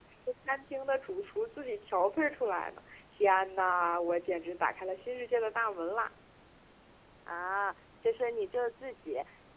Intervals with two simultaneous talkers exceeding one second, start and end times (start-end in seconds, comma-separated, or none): none